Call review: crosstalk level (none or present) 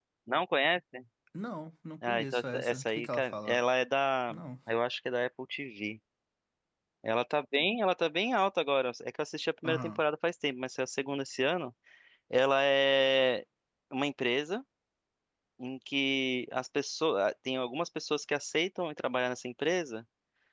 present